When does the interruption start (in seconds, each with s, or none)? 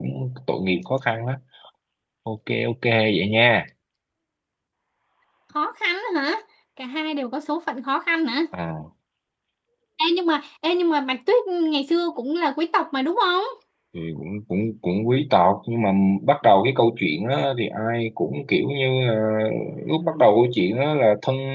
none